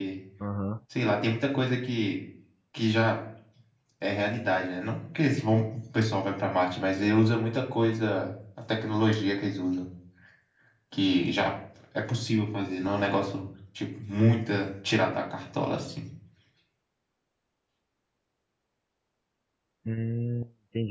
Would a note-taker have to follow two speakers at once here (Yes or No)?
No